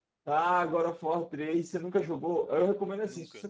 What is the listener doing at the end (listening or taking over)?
listening